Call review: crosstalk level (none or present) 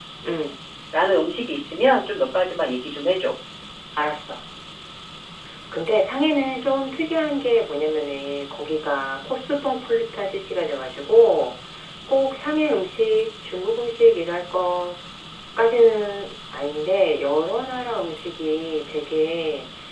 none